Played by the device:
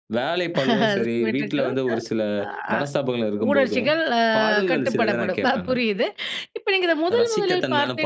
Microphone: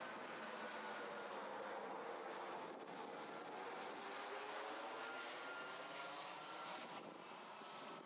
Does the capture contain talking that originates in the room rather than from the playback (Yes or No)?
No